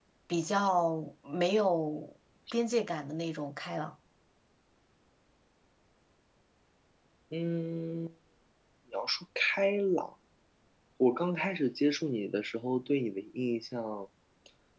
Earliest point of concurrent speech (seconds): none

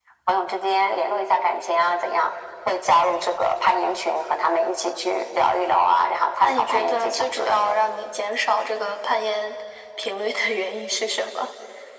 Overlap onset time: 6 s

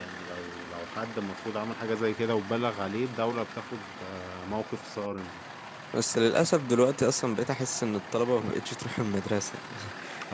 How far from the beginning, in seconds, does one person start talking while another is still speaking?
none

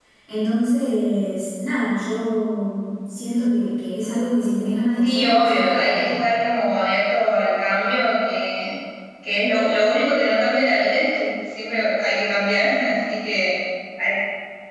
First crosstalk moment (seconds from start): 5 s

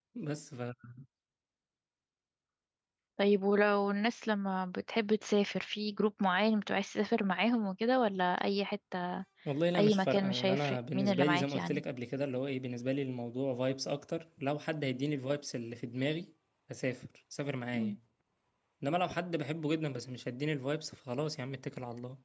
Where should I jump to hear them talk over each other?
10 s

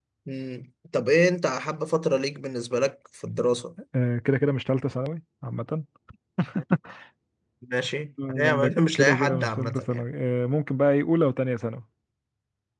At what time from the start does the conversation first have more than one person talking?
8 s

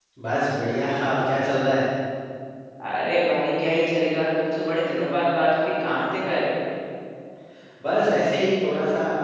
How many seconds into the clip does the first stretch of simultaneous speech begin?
none

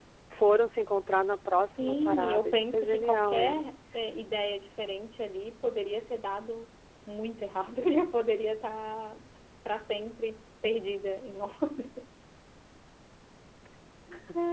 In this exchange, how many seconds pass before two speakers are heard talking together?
2 s

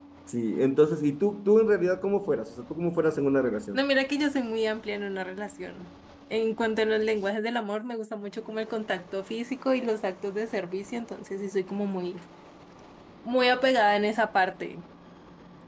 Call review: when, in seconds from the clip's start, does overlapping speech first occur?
none

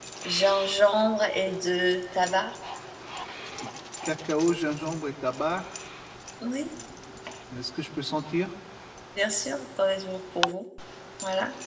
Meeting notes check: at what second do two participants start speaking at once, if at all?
none

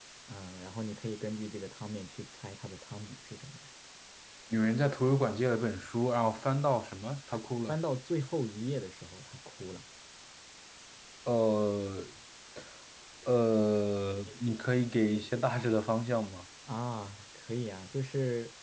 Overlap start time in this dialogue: none

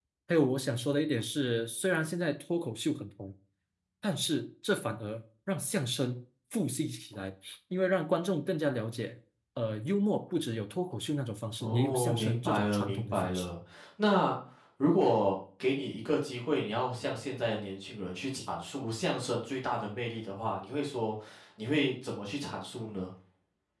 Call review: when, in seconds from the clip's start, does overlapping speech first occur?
12 s

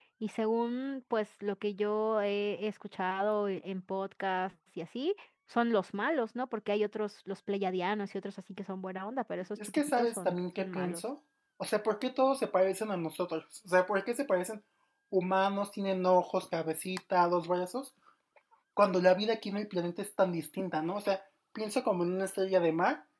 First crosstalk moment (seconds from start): 10 s

